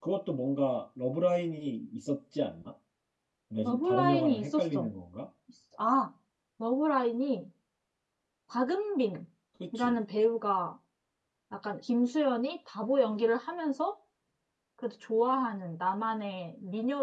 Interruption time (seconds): 3.6 s

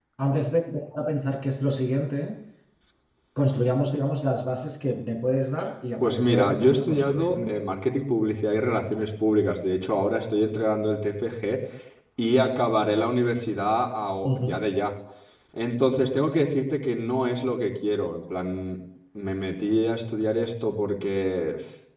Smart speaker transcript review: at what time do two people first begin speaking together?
6.0 s

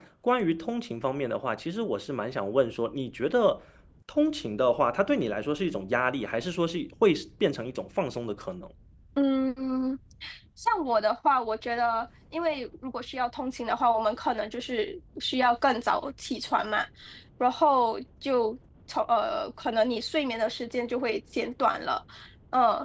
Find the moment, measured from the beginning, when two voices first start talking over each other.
none

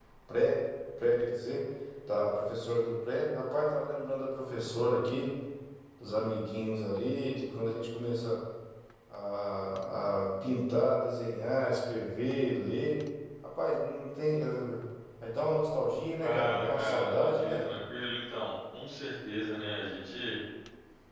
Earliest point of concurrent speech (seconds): 16.2 s

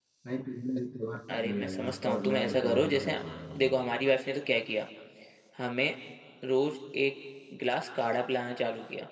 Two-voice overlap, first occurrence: 1.3 s

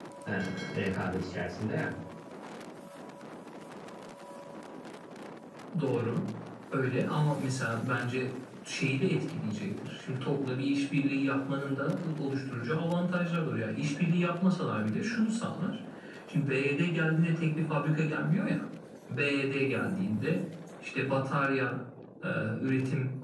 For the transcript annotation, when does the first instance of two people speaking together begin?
none

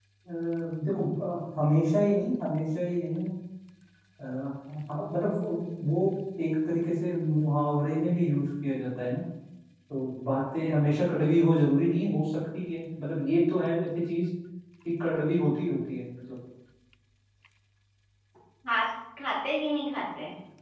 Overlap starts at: none

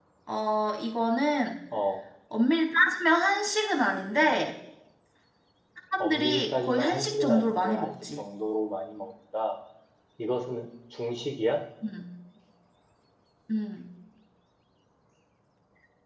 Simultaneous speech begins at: 6.0 s

